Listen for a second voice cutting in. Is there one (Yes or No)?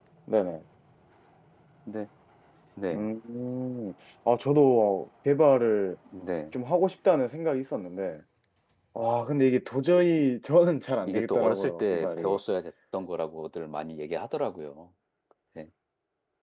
Yes